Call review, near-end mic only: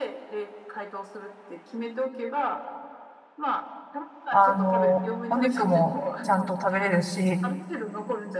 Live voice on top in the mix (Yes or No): Yes